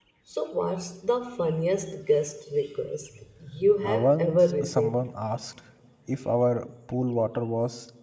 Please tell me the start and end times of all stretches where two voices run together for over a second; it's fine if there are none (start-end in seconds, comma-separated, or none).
3.8-5.1